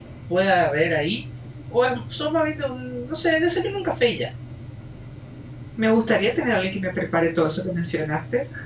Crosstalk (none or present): none